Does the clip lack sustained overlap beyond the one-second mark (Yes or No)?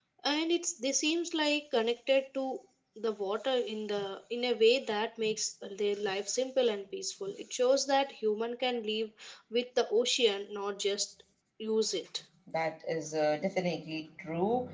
Yes